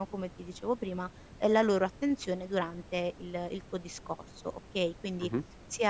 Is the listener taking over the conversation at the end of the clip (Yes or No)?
No